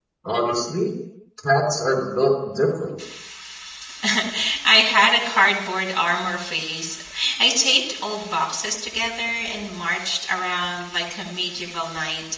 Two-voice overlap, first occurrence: none

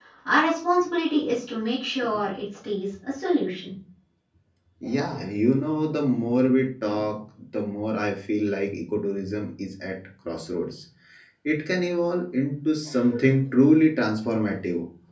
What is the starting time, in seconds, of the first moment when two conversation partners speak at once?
none

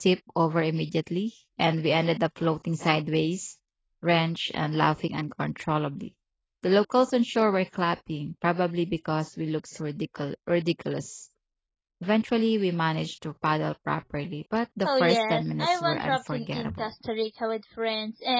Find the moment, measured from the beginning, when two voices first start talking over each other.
14.8 s

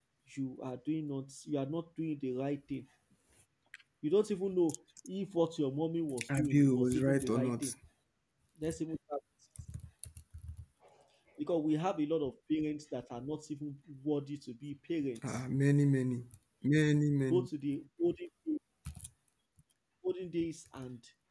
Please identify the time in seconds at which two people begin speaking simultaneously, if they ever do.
6.3 s

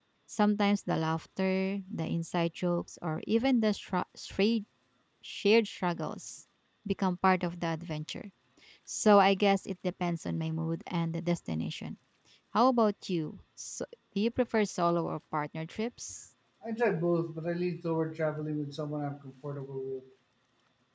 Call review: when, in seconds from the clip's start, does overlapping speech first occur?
none

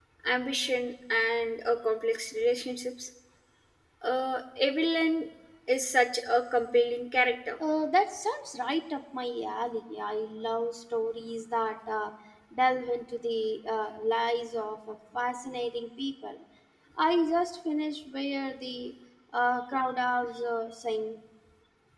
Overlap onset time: none

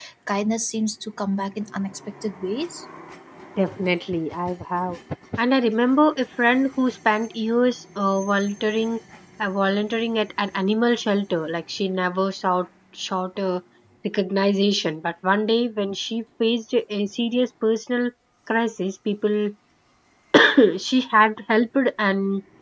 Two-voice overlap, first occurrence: none

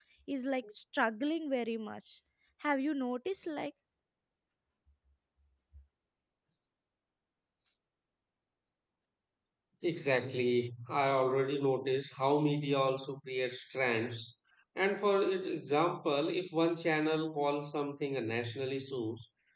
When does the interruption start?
none

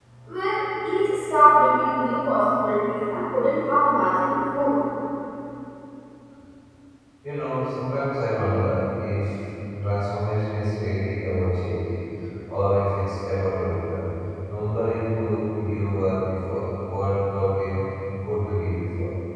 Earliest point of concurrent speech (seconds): none

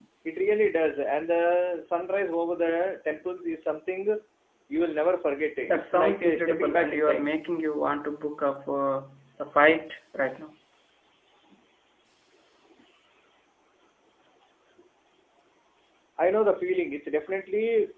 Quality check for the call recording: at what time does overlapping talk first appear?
5.7 s

